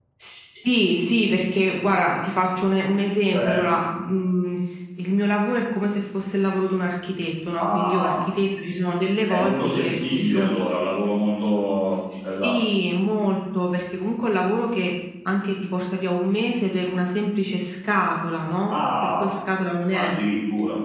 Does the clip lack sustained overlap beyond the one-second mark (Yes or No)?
No